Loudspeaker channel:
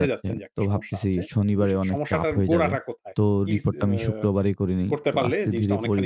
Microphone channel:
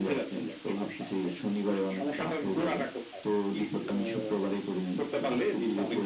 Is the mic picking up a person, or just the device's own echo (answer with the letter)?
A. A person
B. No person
B